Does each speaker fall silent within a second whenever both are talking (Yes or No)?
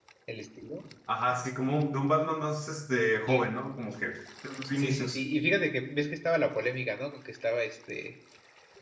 Yes